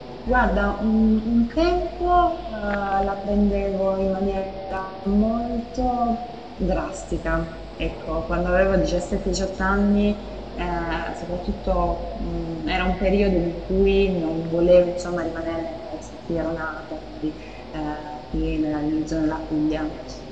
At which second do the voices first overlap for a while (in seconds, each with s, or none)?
none